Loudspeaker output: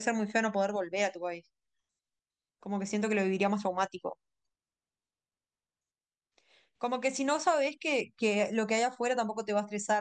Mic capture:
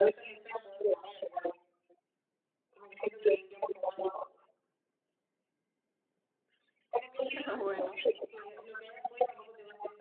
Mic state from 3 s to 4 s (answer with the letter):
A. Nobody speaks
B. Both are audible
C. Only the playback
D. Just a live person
C